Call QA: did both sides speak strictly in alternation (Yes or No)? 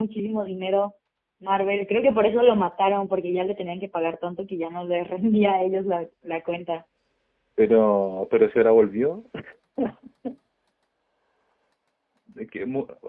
Yes